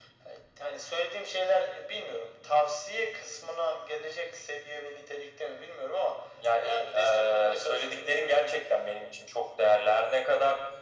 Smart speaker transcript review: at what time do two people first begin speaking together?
6.6 s

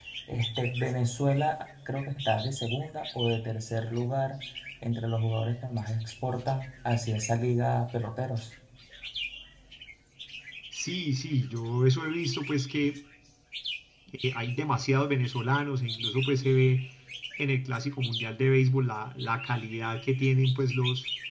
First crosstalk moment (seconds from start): none

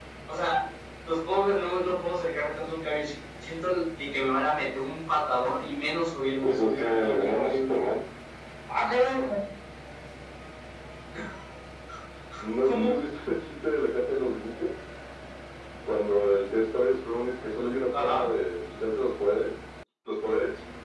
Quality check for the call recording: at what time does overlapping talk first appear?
6.4 s

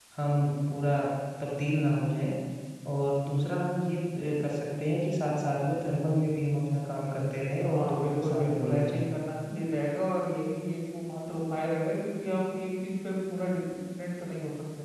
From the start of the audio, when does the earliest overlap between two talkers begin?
7.6 s

